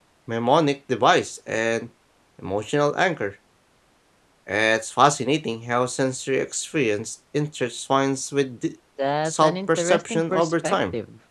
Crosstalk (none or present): present